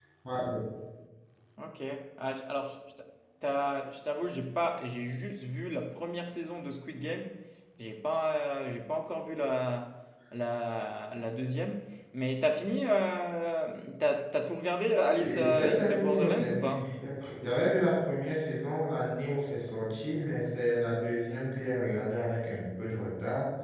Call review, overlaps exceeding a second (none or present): present